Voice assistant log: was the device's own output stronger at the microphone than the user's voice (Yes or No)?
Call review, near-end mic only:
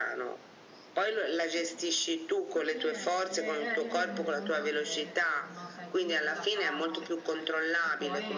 Yes